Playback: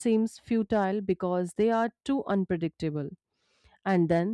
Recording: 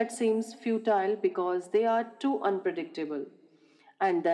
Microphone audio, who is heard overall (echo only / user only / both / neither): echo only